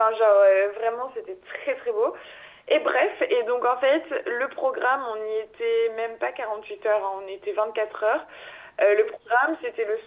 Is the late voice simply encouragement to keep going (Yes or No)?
Yes